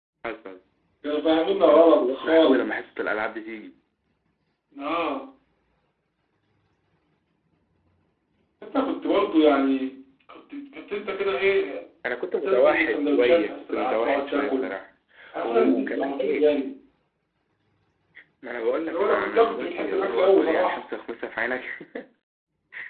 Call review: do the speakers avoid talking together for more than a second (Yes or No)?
No